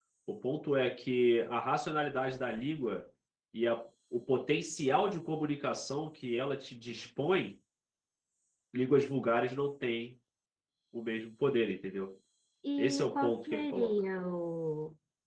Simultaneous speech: Yes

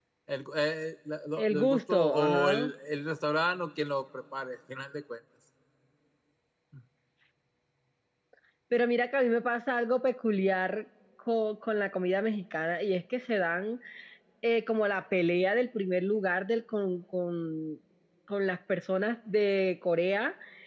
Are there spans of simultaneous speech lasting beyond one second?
Yes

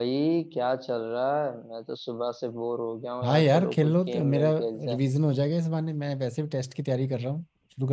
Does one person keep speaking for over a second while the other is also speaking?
Yes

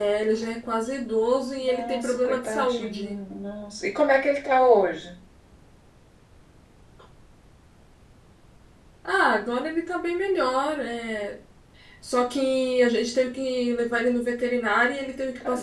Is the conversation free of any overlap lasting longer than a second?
No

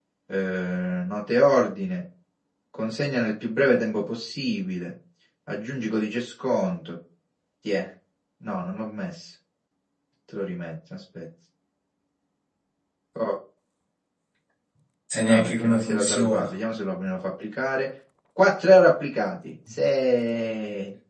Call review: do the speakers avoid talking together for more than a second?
No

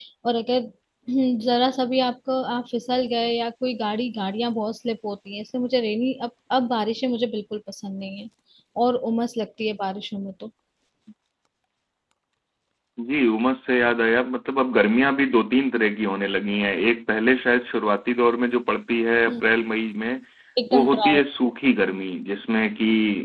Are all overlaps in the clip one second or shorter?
Yes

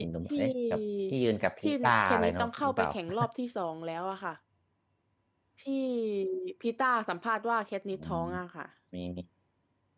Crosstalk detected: Yes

